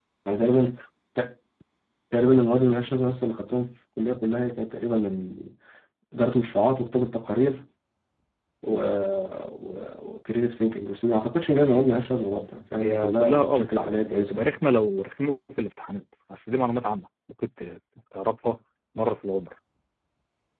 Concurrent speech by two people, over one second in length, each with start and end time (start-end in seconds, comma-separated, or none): 12.8-14.5